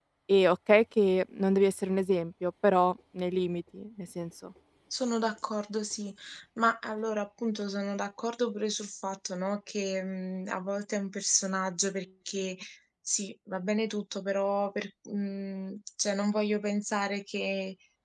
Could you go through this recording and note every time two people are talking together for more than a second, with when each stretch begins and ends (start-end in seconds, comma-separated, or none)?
none